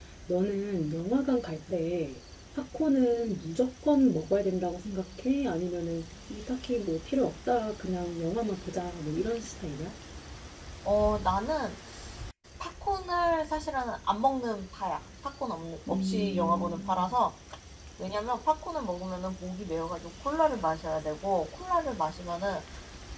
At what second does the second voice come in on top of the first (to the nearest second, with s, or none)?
16 s